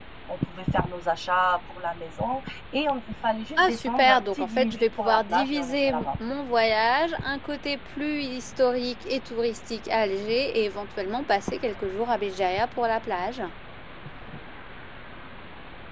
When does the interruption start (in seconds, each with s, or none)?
3.6 s